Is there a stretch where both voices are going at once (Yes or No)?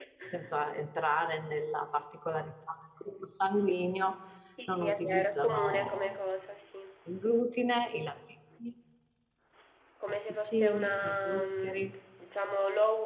Yes